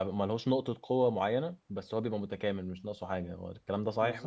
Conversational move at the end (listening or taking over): taking over